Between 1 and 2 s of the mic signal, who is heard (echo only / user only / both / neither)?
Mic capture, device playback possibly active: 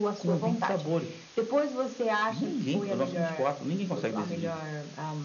echo only